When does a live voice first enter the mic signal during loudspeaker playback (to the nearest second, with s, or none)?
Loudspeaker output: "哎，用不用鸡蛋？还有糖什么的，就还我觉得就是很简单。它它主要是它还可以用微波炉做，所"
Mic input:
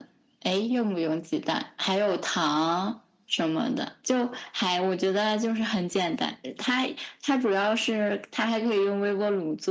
none